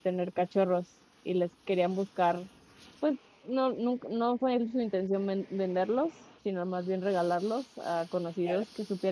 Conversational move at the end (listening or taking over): listening